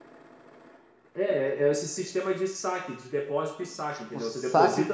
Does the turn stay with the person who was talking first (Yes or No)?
No